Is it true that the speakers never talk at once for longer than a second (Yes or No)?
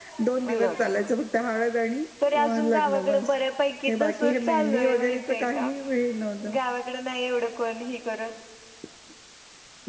No